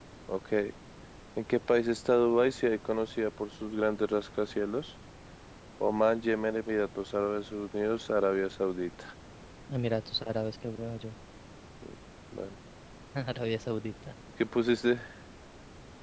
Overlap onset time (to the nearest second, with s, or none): none